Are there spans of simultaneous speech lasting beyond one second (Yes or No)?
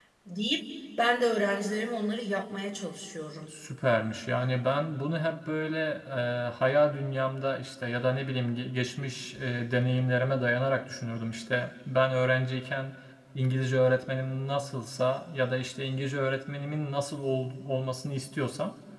No